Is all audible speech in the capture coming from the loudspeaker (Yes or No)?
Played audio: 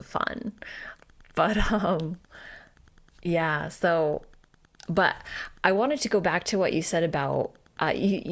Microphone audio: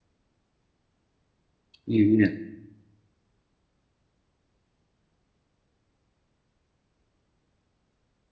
No